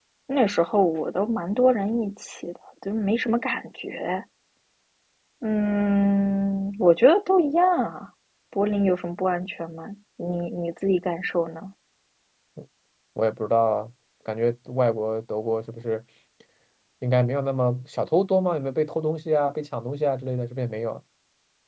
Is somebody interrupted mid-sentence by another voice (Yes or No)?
No